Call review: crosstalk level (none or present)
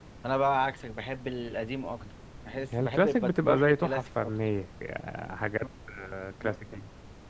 present